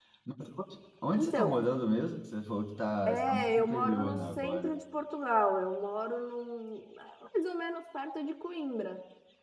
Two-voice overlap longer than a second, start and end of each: 3.0-4.7

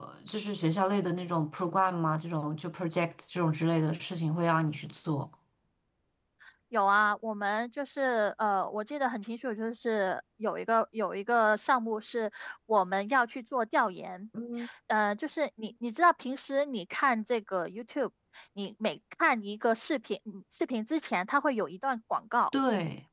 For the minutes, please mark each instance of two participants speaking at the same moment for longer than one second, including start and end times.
none

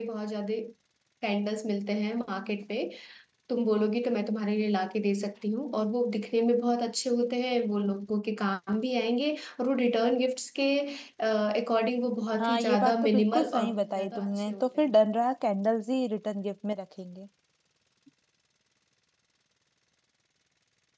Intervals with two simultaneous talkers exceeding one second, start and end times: 12.4-14.7

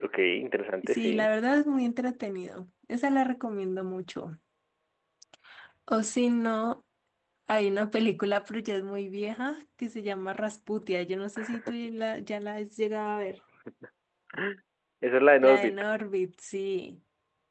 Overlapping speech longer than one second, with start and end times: none

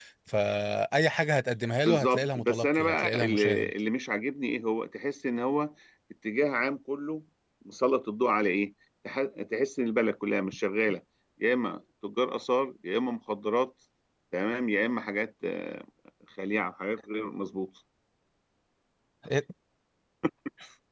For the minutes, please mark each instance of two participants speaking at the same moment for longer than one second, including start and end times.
1.9-3.7

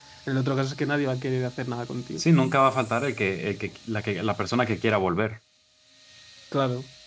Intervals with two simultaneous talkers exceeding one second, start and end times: none

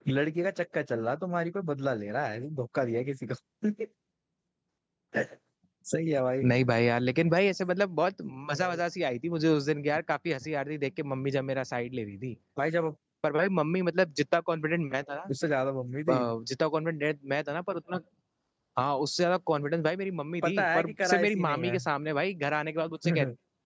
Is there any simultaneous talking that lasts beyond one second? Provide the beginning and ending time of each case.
20.4-21.8

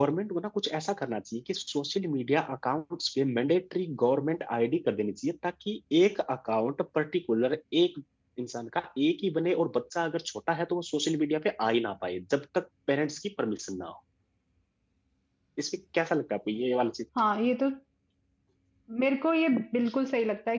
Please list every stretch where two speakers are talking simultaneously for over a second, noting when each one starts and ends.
none

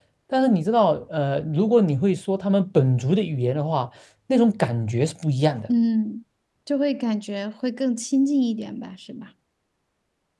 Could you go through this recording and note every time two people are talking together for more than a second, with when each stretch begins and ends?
none

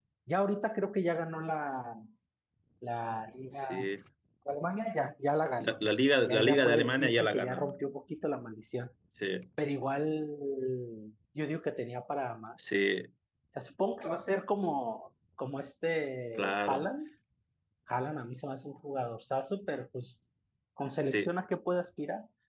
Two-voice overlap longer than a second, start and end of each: 6.3-7.6

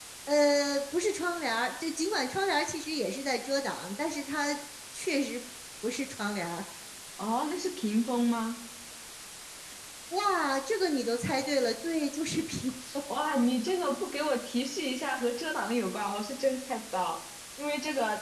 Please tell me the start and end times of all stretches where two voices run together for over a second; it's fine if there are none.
none

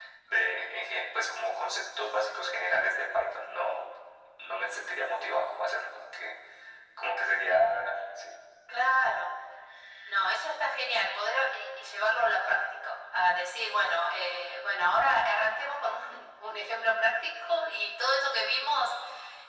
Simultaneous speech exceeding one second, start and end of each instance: none

